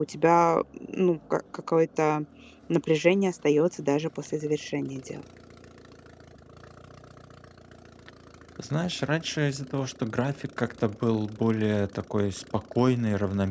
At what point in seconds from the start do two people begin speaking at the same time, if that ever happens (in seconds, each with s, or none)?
none